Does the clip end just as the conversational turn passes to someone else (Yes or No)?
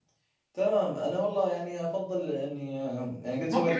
Yes